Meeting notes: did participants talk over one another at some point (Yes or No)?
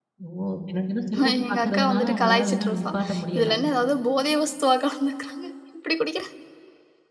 Yes